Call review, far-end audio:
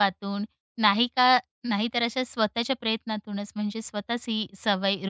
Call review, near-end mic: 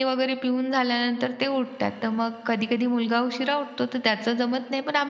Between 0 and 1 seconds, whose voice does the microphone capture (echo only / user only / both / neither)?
user only